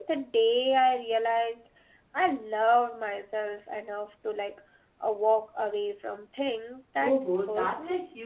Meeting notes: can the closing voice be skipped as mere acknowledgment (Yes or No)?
No